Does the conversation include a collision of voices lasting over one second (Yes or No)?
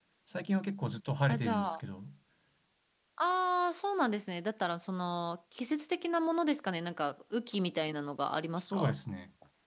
No